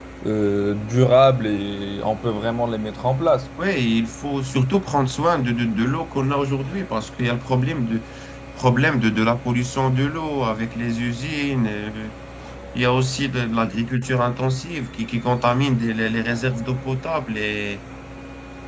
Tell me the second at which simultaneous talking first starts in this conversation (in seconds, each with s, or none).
none